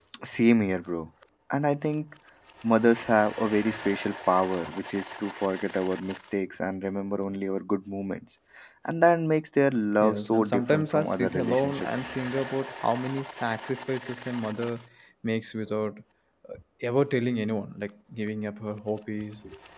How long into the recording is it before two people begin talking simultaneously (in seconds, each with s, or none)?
10.0 s